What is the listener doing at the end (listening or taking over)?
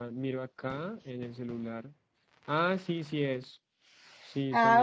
taking over